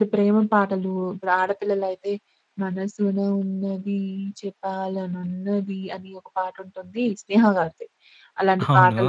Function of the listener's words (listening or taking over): listening